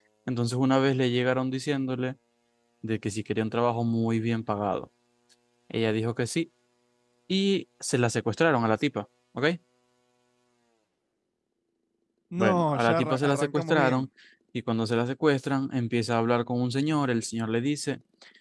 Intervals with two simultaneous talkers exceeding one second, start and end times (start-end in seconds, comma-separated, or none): 12.4-14.1